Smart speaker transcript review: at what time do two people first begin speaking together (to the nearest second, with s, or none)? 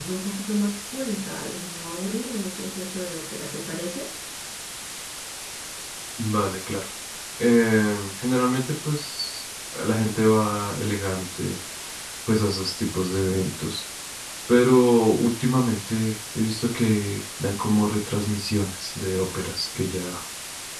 none